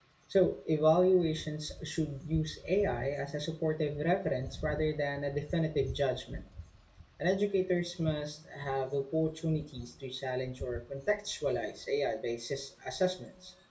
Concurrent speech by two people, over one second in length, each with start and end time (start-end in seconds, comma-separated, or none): none